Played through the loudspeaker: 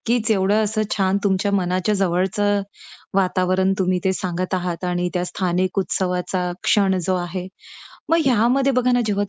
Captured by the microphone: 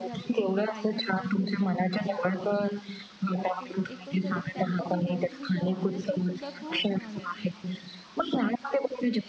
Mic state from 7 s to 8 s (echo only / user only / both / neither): both